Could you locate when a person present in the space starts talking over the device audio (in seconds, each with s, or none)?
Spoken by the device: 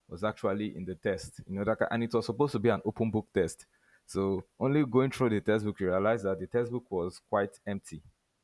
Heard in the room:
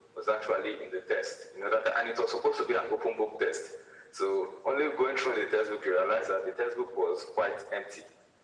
none